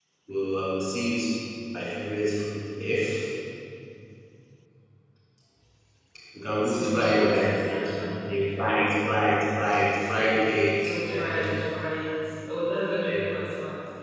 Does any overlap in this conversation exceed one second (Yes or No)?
Yes